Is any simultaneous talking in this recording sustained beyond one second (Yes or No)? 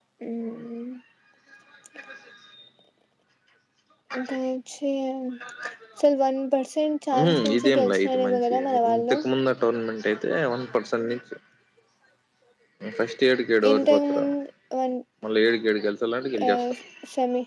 Yes